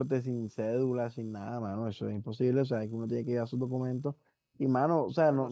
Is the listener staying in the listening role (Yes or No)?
Yes